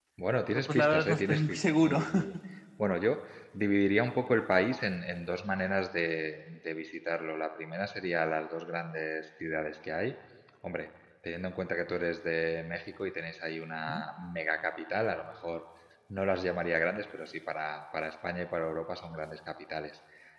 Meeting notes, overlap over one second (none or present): present